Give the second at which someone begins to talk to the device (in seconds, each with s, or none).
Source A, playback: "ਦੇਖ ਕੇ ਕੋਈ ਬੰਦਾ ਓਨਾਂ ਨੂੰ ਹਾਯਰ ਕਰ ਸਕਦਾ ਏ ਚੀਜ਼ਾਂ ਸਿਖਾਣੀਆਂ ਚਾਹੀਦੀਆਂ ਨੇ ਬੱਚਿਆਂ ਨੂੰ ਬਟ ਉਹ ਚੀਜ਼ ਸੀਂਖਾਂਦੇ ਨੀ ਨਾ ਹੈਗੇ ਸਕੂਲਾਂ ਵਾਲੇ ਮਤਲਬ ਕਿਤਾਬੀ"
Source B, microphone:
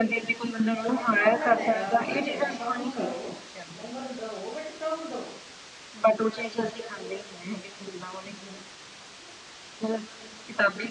0.9 s